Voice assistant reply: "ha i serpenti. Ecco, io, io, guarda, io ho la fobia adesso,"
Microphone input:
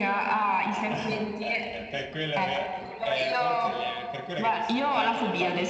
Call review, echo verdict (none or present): present